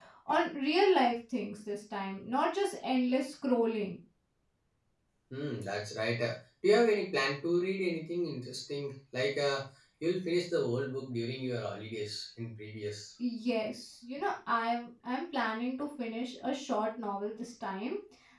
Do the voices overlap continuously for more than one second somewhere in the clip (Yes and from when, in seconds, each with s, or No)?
No